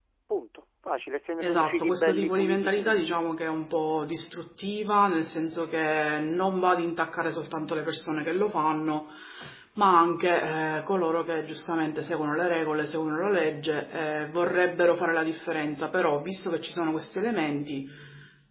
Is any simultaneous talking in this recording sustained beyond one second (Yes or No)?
Yes